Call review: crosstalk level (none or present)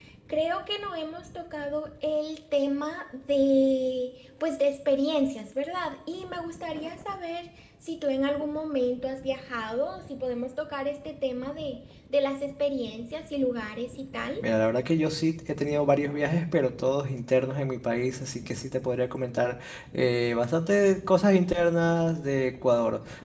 none